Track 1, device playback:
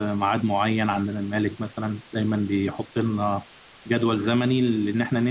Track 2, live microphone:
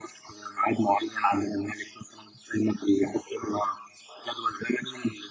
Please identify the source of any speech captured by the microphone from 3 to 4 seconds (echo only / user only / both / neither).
echo only